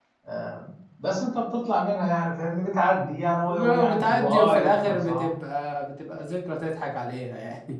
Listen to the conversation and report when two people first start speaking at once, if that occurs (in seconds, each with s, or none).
3.5 s